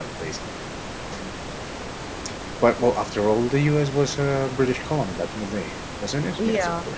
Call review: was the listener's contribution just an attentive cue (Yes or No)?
No